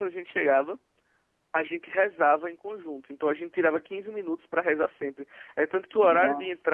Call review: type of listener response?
listening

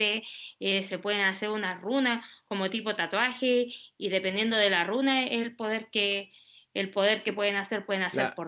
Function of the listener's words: taking over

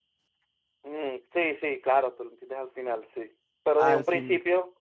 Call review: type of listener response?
listening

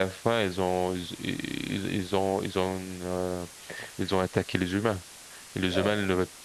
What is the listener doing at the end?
listening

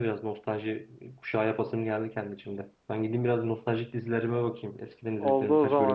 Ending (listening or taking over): taking over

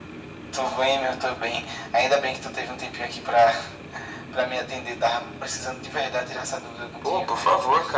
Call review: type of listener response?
taking over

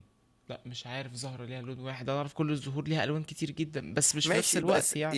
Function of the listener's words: taking over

